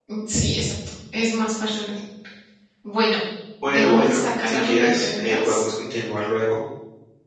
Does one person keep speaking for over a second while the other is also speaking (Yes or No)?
Yes